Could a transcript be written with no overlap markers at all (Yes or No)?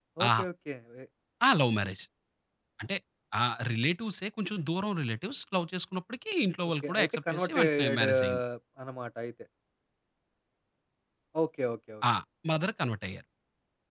No